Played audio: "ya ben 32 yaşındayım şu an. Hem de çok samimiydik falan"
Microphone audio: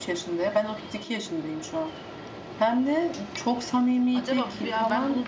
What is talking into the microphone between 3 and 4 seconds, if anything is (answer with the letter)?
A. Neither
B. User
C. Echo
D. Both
C